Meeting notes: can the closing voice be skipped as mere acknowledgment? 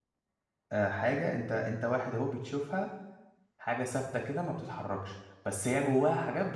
Yes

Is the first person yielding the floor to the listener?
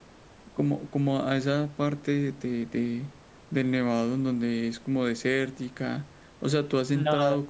No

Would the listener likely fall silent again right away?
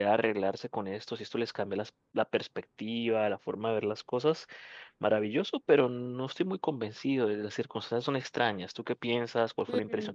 No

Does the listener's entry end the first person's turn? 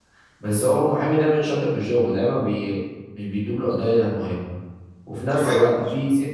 No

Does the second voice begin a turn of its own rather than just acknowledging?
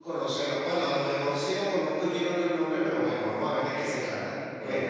Yes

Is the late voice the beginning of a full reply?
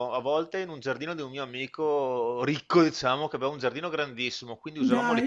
No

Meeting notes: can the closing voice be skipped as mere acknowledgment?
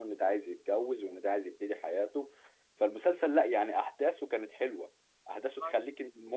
Yes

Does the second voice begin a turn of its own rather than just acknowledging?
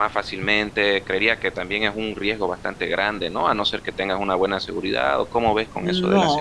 Yes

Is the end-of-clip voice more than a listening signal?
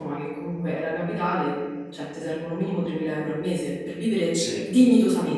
No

